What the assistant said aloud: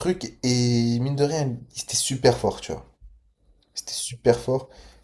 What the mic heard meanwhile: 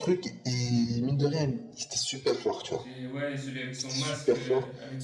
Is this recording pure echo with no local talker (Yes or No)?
No